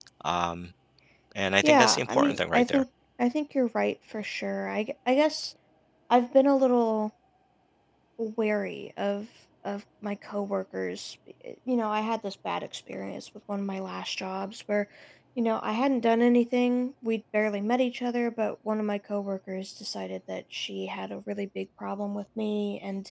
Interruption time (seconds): 1.6 s

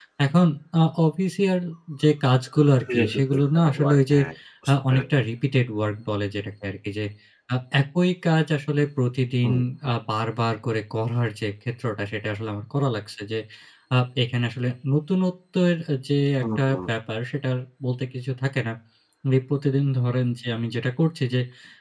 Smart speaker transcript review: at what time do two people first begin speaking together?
3.0 s

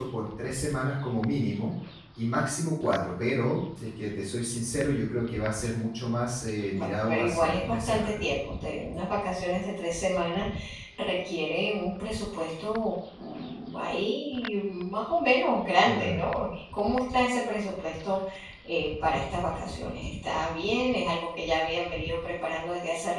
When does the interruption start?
6.7 s

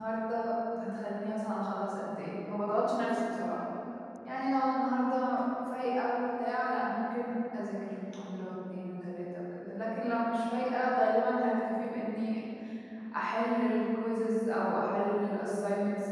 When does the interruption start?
none

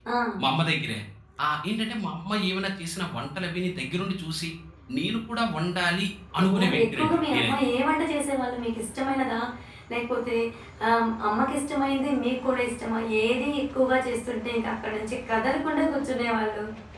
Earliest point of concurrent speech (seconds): 6.3 s

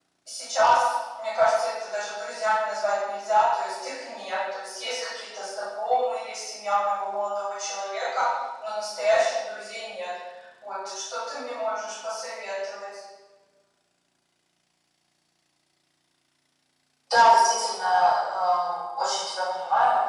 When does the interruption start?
none

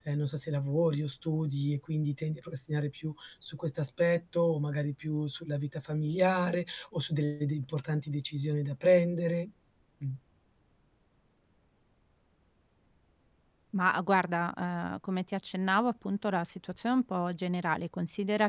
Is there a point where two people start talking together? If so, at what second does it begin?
none

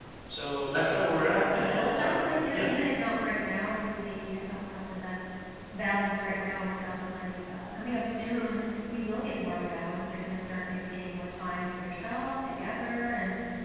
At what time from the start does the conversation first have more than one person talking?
1.4 s

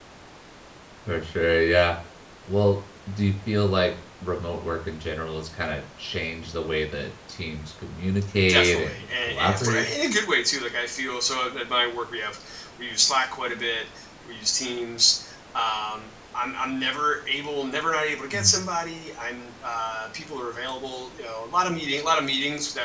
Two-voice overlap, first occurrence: 8.4 s

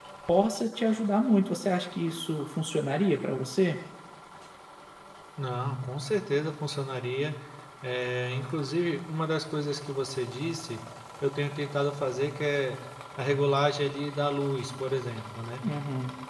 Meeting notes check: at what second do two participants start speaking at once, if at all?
none

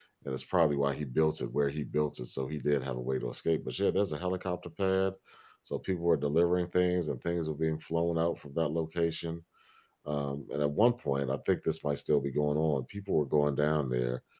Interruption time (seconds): none

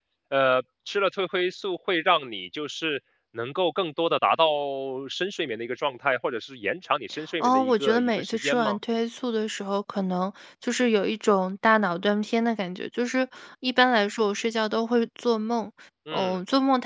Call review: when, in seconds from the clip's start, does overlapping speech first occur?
7.4 s

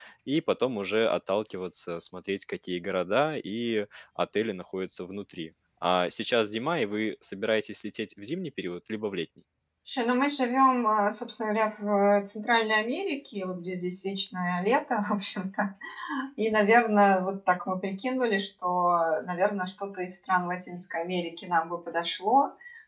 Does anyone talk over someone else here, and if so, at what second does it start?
none

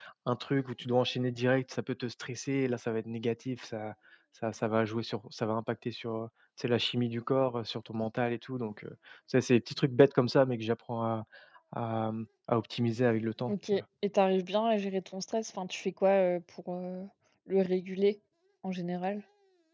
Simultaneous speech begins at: none

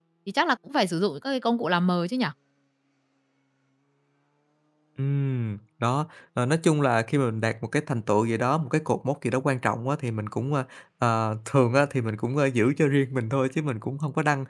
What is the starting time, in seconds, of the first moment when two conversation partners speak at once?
none

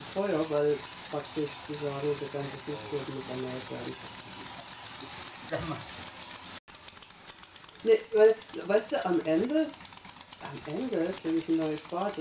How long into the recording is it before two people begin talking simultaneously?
2.7 s

